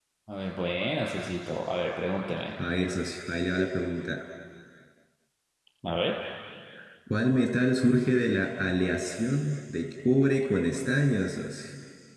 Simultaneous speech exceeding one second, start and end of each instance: none

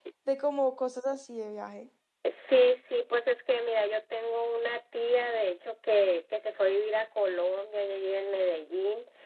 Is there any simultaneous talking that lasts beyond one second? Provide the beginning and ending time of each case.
none

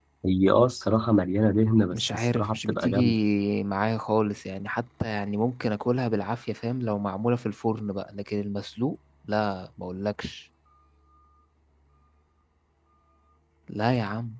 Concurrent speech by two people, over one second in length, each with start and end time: 1.9-3.1

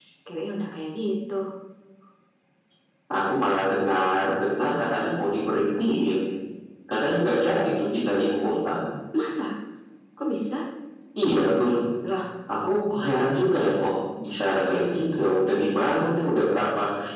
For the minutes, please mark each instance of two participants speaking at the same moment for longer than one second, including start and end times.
none

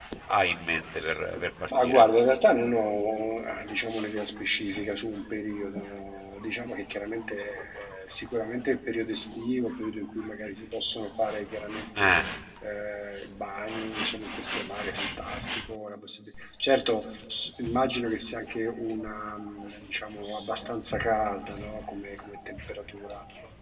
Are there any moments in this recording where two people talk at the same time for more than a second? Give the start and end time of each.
none

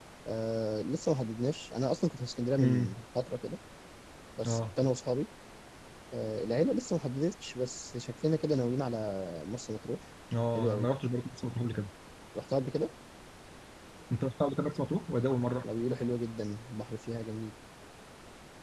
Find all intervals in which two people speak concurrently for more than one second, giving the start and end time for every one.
none

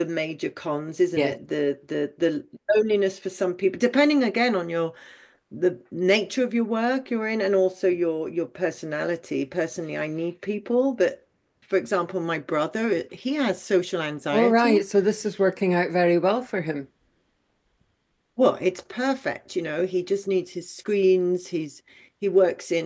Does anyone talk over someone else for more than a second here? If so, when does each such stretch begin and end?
none

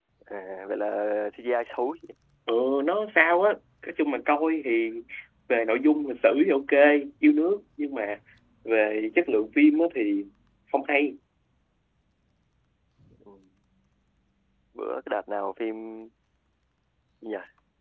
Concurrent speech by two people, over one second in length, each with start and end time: none

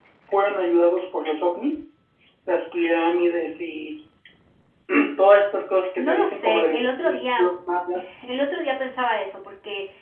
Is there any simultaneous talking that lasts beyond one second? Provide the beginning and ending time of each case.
6.0-7.5

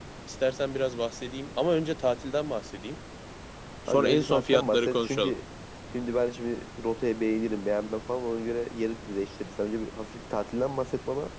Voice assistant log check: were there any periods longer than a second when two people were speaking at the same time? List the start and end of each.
3.9-5.3

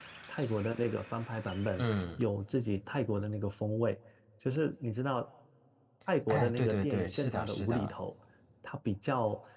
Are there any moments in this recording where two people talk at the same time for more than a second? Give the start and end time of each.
6.3-7.9

